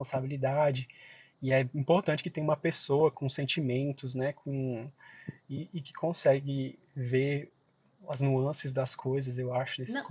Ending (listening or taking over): taking over